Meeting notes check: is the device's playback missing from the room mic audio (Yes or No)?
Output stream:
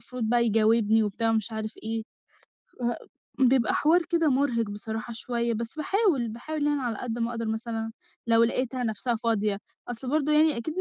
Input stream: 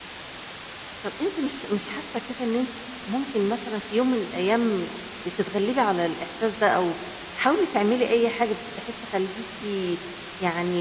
Yes